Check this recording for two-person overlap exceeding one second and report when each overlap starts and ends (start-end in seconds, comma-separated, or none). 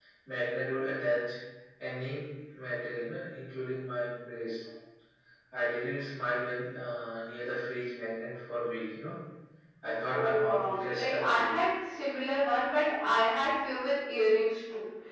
10.1-11.5